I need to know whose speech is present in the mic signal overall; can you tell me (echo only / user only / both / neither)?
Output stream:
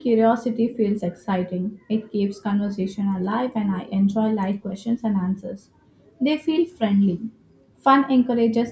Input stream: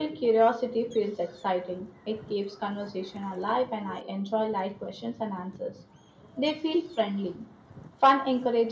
echo only